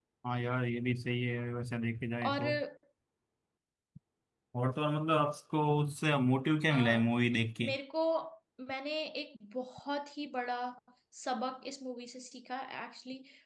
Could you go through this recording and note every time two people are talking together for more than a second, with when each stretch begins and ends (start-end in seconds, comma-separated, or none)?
none